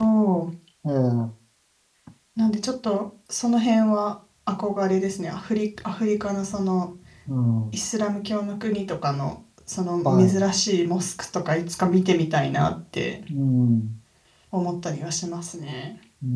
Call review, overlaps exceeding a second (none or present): none